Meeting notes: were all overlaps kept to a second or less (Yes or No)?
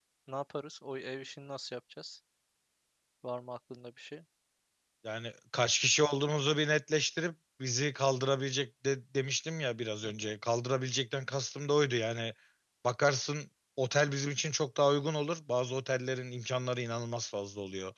Yes